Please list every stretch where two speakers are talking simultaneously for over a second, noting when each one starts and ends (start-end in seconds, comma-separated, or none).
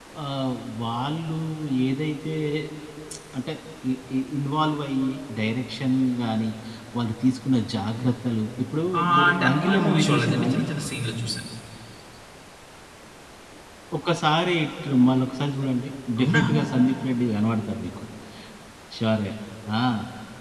9.0-10.6